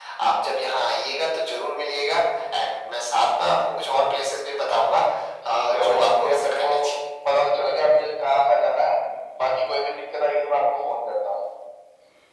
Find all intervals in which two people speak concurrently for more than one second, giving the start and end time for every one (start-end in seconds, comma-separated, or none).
5.5-6.7